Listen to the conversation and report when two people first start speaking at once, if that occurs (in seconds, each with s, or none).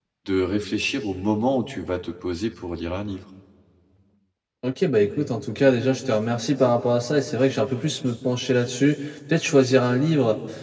none